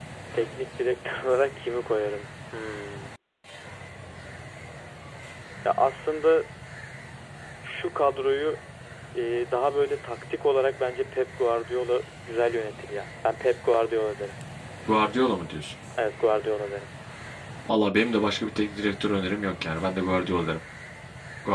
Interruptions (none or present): none